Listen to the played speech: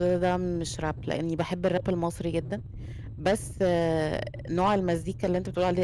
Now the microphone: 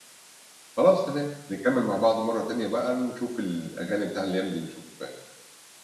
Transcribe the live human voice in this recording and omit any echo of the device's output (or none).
خلاص تمام، نكمِّل مع بعض مرّة تانية بقى، نشوف الأغاني بتاع الأيام دي، نشوف